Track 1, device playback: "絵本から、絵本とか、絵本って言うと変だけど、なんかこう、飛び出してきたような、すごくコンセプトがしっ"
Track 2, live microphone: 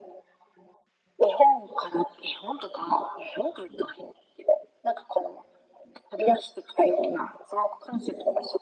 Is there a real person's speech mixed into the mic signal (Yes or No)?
No